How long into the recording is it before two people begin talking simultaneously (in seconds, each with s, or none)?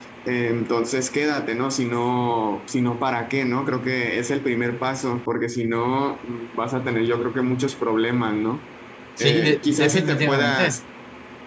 9.2 s